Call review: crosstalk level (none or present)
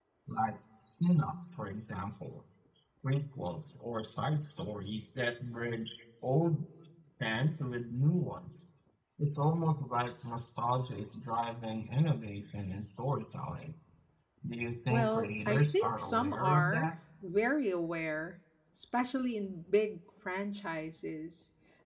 present